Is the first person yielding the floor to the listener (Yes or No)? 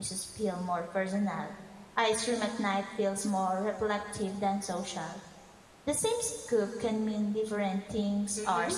Yes